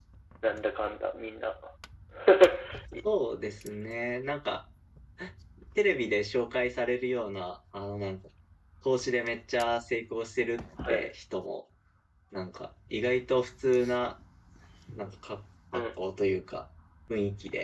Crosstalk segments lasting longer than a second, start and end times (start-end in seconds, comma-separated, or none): none